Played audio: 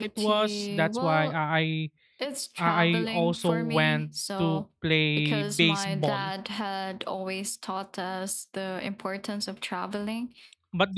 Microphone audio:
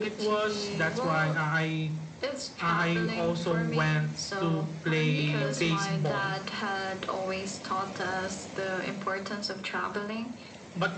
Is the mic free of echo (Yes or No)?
No